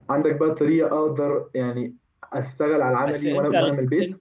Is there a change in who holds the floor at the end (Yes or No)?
Yes